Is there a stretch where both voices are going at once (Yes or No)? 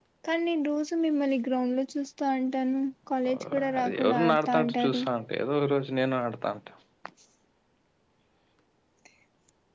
Yes